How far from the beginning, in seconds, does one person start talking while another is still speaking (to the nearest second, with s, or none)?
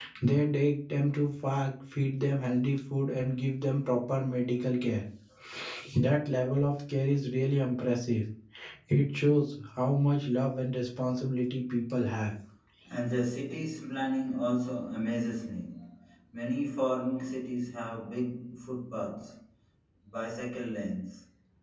none